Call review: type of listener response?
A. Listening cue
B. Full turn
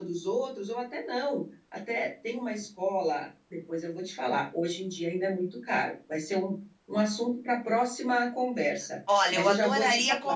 B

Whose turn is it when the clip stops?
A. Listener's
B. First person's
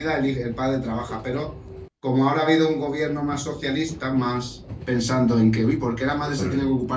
B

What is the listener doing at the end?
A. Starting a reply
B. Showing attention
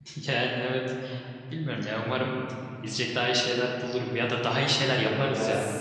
A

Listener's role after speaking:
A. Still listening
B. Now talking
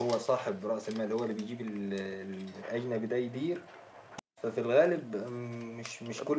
A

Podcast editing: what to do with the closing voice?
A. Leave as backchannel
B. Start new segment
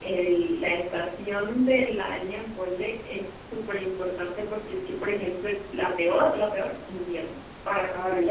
A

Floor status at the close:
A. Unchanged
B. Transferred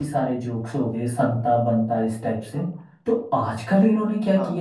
A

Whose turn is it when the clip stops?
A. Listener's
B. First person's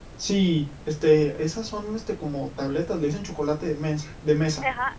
A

